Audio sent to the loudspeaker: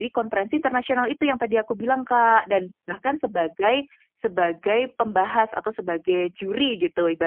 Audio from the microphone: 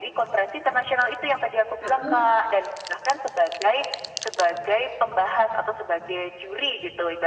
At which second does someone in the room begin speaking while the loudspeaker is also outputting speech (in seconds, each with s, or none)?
1.8 s